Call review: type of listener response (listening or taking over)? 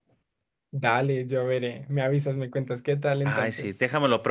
taking over